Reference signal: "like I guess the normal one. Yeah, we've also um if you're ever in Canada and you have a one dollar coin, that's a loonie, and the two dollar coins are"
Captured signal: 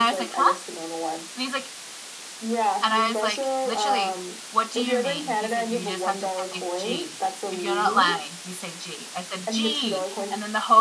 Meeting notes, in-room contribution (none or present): present